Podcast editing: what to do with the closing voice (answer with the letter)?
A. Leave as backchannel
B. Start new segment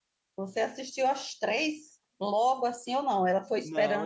B